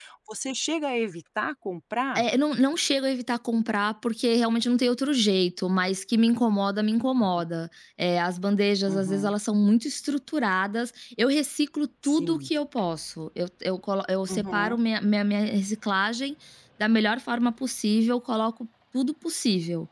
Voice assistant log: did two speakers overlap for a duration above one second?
No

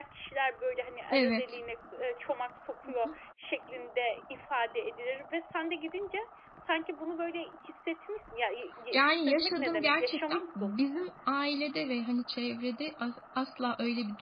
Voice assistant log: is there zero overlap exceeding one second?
No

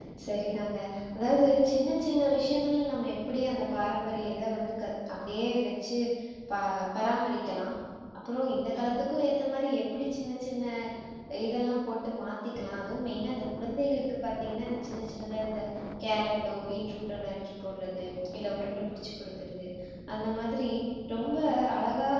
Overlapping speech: No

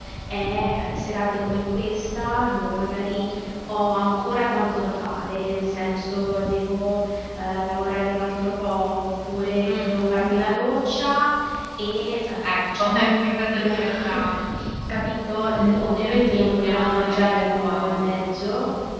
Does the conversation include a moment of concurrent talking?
Yes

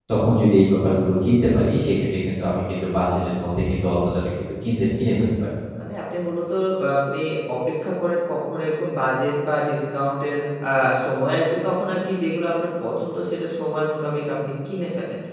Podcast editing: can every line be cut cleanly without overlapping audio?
Yes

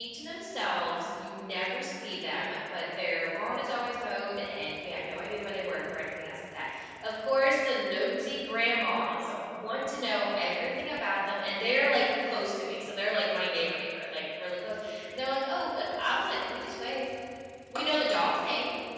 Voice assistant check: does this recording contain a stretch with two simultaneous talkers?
No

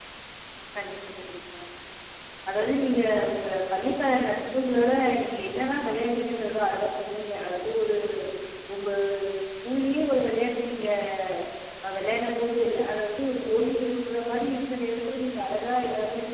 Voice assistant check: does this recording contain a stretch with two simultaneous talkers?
No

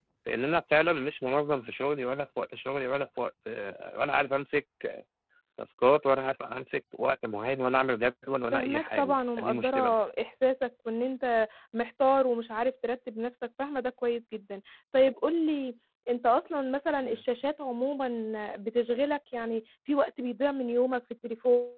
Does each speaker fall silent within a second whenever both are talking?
No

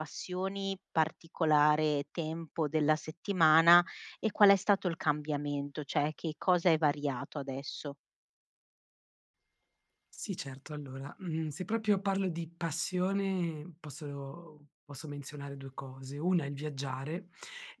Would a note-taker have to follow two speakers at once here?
No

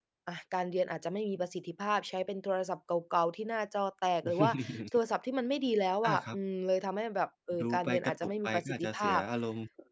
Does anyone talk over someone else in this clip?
Yes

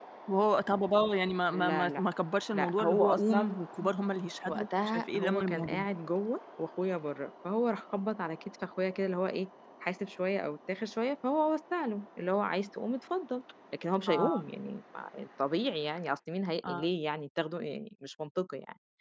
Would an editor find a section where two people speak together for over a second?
Yes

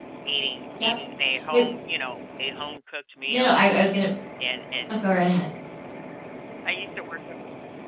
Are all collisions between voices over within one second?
Yes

